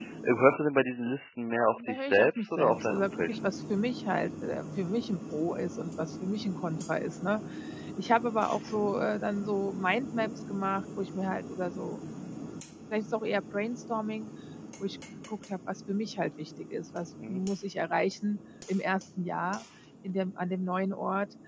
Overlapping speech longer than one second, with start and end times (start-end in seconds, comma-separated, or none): 1.9-3.4